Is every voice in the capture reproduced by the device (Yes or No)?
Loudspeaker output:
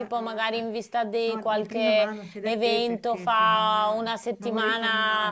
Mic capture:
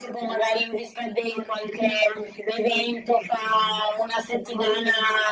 Yes